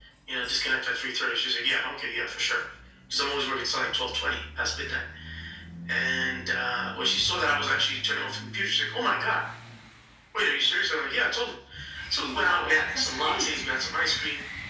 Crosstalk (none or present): present